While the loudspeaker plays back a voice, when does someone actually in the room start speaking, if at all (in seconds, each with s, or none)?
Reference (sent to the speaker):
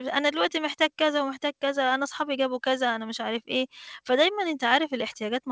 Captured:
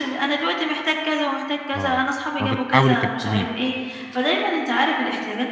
1.7 s